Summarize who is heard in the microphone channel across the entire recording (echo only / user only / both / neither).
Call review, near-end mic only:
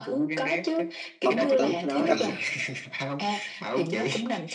both